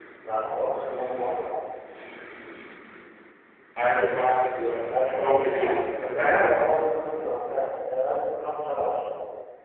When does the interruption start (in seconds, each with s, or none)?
4.9 s